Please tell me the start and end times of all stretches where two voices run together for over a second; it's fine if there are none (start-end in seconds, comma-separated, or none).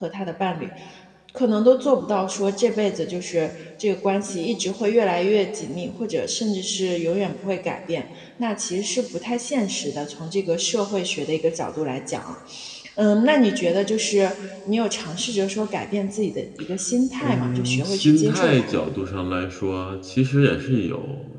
17.2-18.7